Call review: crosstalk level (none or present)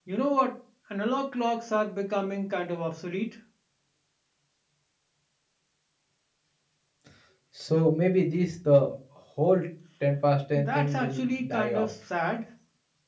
present